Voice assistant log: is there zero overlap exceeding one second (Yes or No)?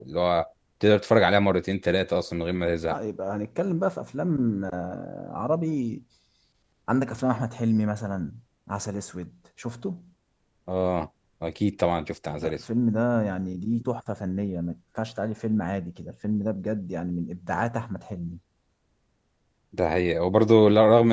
Yes